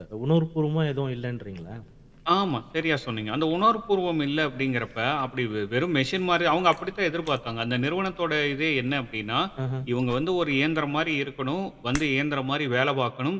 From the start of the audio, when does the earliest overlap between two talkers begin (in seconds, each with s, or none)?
none